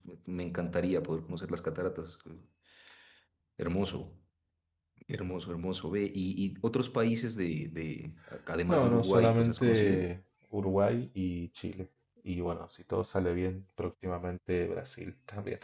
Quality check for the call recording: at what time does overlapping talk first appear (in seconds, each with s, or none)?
8.7 s